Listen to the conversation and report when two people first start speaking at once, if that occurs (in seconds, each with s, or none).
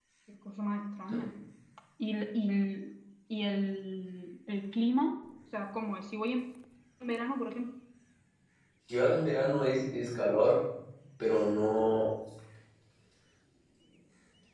none